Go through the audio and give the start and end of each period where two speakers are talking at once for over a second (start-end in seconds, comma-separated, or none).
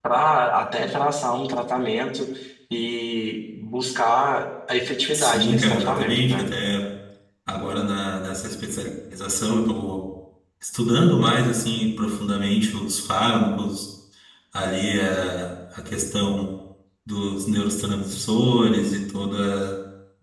5.1-6.5